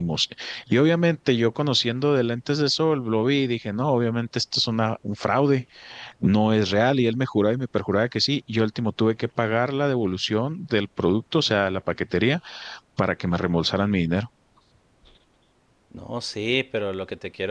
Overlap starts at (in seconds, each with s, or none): none